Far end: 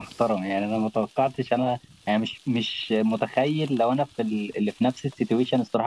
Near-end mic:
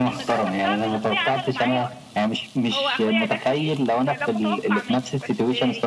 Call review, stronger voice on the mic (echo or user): echo